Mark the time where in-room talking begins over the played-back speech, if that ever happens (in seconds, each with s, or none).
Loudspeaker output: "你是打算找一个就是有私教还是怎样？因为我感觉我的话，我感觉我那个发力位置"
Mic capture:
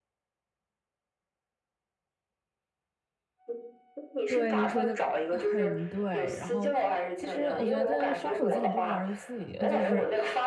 4.3 s